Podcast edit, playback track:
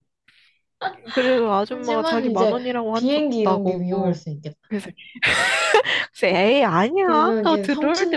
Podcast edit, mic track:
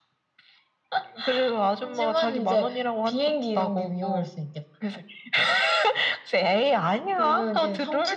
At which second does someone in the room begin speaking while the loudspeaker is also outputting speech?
none

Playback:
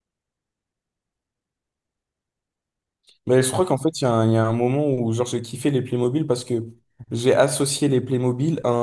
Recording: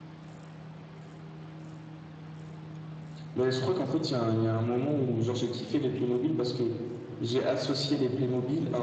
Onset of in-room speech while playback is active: none

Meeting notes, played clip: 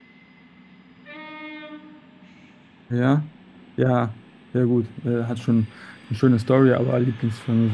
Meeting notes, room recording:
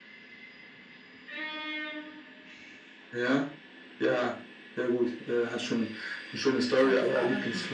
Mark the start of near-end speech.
6.8 s

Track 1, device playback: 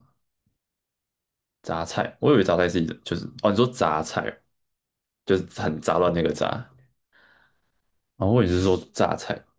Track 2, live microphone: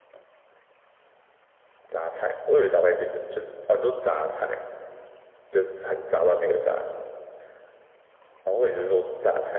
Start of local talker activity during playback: none

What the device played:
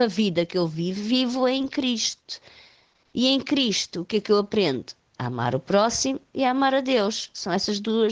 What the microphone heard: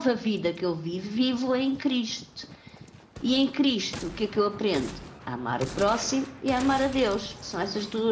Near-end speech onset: none

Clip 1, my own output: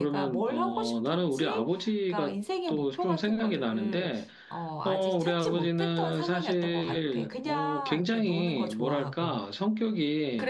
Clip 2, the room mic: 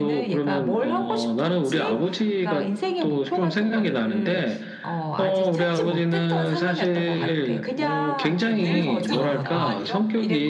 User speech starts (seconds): 8.6 s

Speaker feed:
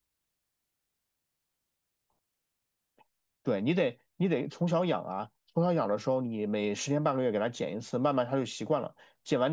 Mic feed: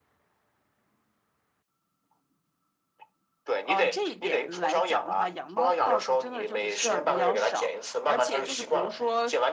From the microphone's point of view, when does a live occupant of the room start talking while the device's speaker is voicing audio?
3.6 s

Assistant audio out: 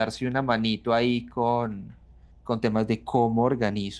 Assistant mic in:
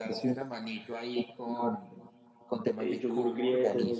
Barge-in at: 2.7 s

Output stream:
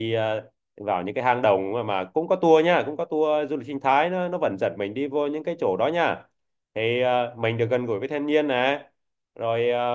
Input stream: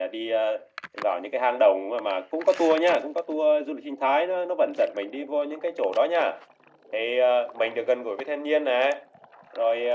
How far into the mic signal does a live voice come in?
none

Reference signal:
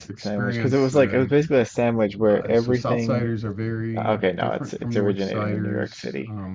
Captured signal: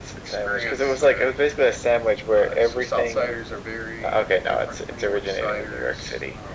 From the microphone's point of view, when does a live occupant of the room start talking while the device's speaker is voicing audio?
none

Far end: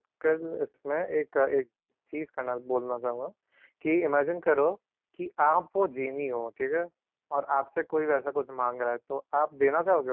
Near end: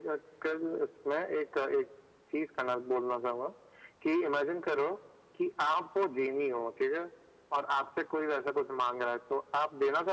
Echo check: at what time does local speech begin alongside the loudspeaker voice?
none

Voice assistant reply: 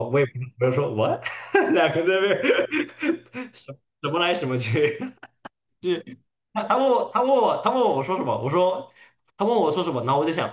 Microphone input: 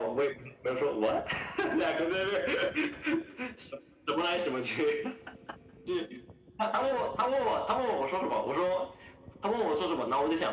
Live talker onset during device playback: none

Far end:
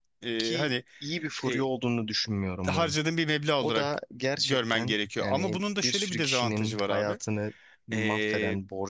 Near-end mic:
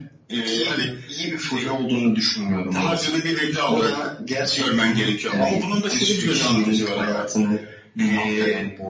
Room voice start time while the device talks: none

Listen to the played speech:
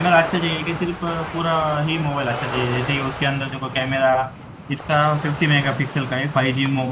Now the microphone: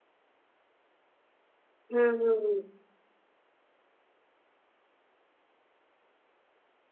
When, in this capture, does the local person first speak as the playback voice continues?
1.9 s

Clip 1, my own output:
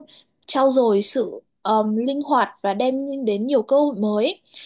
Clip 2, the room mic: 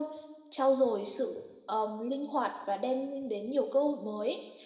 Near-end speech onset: none

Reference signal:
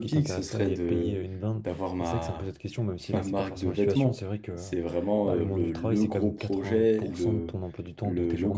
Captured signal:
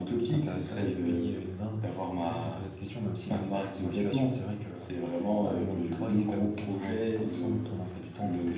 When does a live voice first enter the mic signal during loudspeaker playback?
none

